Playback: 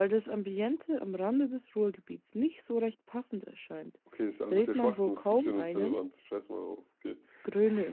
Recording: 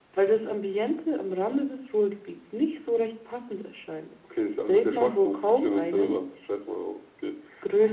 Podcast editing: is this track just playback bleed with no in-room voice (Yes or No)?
Yes